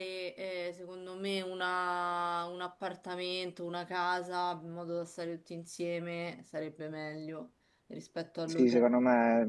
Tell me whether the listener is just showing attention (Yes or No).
No